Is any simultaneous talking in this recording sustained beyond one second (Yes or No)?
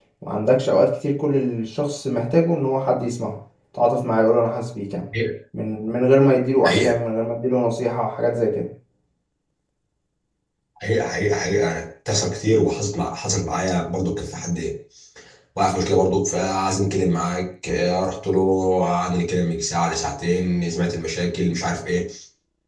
No